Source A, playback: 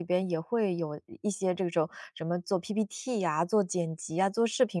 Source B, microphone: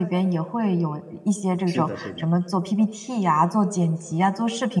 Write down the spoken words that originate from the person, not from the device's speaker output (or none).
是的，是的，